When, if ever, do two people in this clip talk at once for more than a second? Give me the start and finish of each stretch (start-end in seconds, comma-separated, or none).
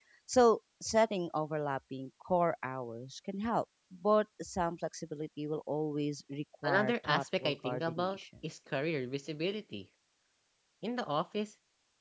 6.6-8.2